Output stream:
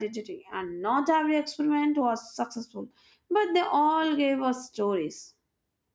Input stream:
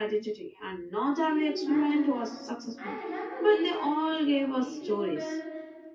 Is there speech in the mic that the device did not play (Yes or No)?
Yes